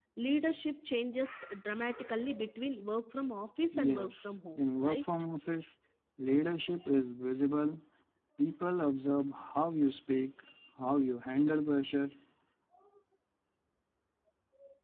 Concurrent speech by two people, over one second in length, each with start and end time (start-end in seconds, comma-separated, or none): 3.8-5.0